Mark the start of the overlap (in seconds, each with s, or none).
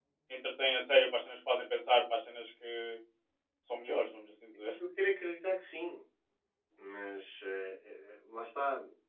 none